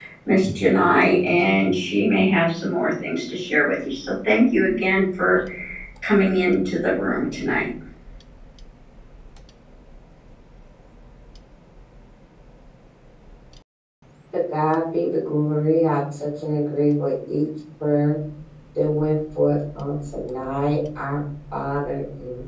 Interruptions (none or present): none